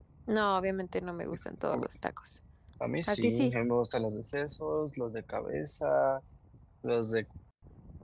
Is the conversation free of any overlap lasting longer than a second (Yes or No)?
Yes